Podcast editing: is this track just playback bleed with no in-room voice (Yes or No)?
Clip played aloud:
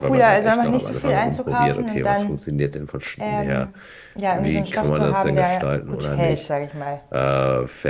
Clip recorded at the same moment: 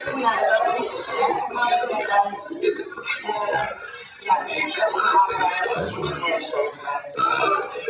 No